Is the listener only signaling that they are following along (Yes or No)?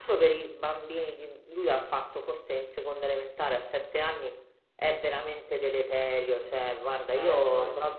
Yes